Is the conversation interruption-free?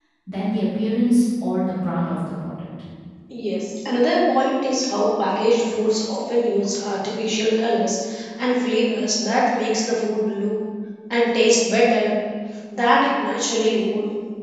Yes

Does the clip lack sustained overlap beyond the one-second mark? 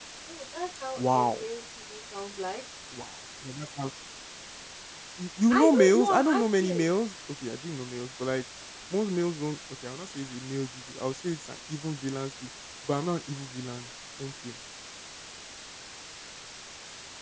No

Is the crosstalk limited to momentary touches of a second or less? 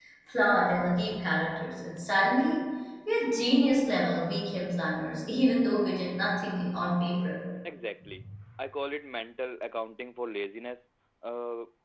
Yes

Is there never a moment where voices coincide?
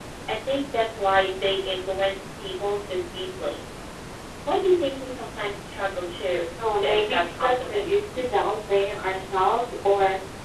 No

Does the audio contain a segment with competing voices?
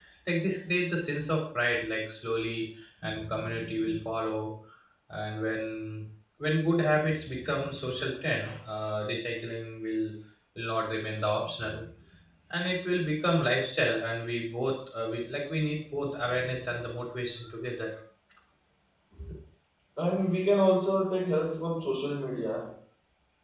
No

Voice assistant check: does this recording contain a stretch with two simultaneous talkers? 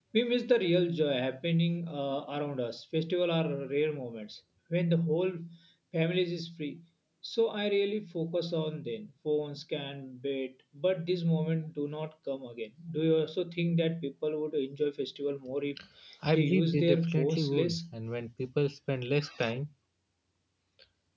Yes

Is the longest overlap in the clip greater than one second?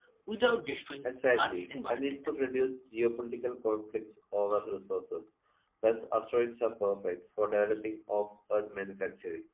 Yes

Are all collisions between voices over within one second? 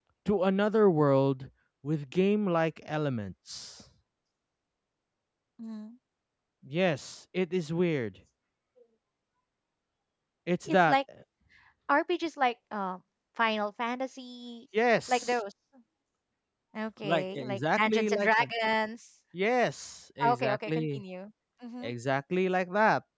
No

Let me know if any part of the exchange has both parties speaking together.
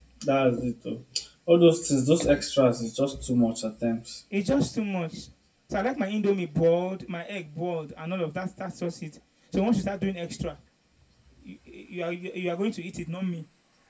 No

